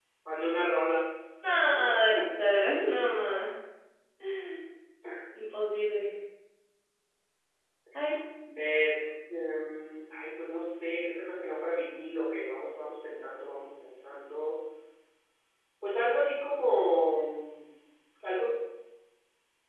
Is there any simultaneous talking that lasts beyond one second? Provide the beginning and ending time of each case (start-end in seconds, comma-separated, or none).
none